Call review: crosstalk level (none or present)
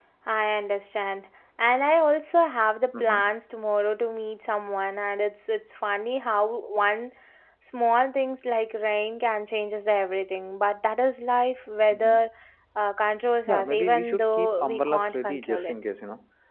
present